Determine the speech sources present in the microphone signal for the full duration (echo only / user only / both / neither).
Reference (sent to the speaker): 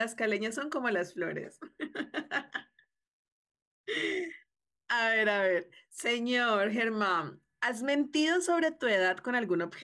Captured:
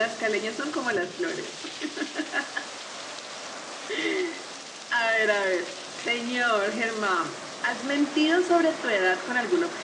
echo only